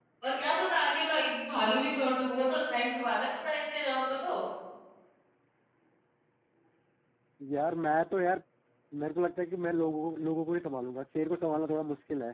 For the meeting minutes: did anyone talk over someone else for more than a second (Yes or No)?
No